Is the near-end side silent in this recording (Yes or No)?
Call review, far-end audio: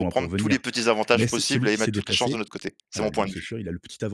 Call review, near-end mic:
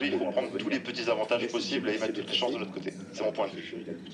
No